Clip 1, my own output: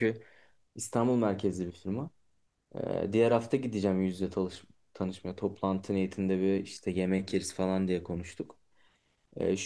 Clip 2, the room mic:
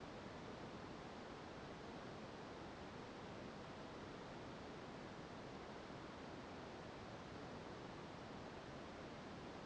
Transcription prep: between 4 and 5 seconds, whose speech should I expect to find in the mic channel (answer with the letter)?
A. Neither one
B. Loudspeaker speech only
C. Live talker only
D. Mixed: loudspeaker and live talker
A